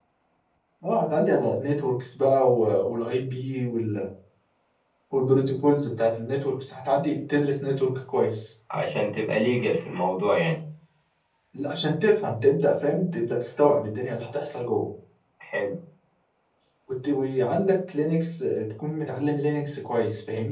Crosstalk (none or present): none